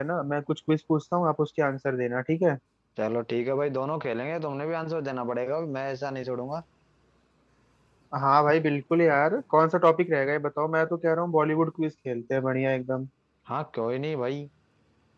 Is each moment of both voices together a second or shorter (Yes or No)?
Yes